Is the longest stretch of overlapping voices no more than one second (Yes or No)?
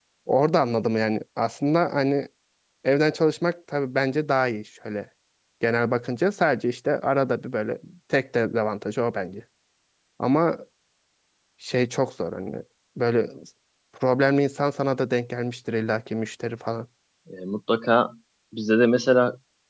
Yes